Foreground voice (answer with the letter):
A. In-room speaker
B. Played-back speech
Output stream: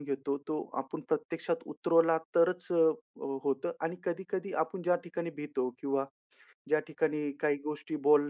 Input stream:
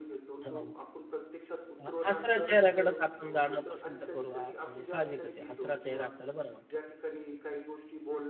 A